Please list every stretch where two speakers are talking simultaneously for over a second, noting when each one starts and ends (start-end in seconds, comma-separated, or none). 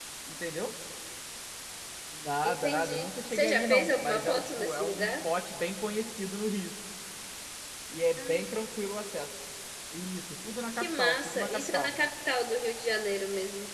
2.4-5.1, 10.7-12.0